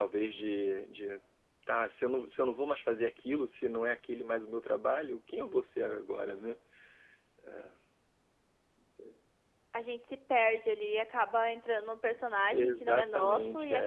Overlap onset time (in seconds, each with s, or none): 12.5 s